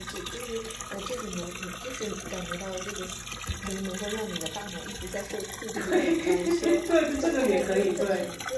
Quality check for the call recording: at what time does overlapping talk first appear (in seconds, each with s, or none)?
5.7 s